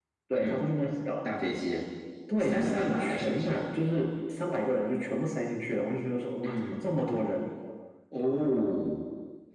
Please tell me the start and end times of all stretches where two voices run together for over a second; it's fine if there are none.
2.4-3.7

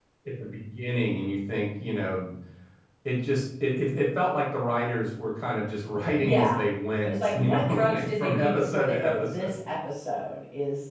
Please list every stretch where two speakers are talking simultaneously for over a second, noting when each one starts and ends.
7.0-9.6

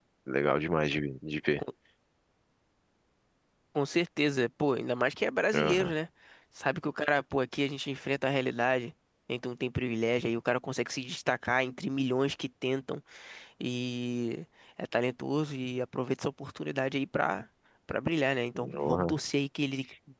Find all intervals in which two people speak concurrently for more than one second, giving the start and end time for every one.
none

